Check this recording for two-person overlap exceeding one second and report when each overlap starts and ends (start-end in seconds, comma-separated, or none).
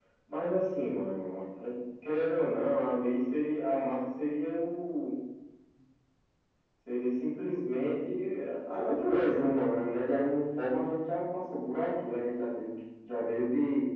none